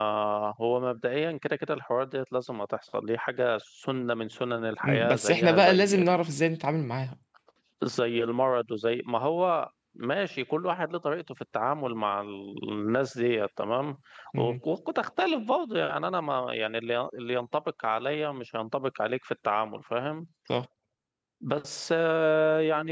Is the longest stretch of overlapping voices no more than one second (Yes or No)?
No